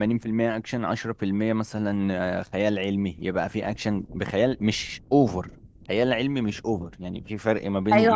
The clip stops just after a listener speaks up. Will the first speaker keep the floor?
No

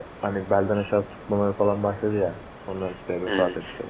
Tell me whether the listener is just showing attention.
Yes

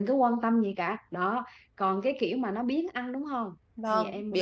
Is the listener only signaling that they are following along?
No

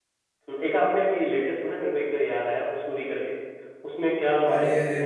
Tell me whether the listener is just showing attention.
No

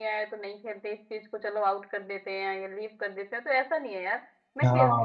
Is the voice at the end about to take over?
Yes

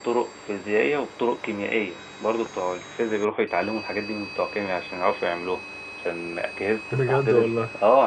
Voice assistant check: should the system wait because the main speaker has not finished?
Yes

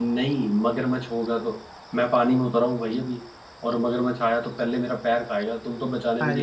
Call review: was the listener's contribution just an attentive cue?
No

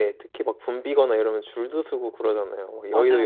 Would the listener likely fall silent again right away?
No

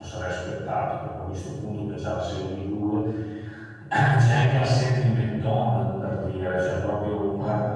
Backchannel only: Yes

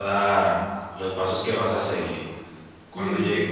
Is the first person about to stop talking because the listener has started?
No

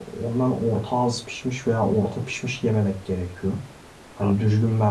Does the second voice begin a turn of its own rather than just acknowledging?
No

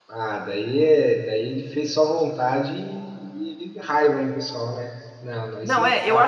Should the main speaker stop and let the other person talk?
Yes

